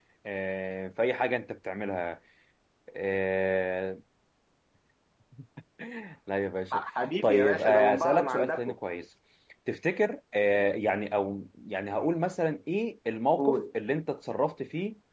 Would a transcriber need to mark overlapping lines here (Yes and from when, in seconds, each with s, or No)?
Yes, from 7.2 s